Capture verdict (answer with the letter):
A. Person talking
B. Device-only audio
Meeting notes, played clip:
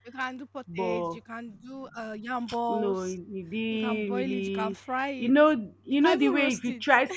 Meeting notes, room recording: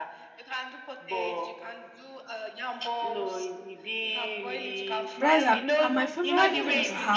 A